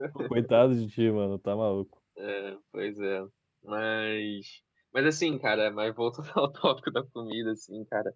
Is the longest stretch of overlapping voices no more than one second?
Yes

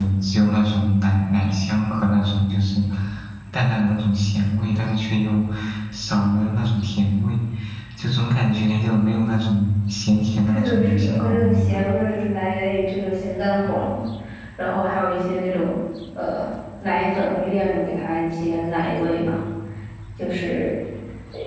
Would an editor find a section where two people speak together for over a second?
Yes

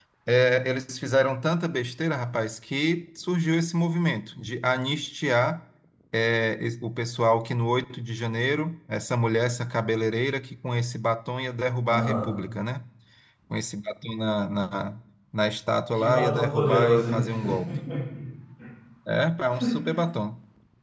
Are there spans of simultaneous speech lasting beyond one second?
Yes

